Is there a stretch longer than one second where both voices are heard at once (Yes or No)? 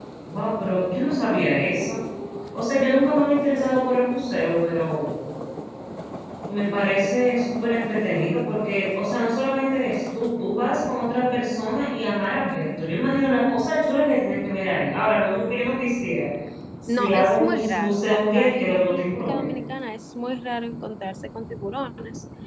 Yes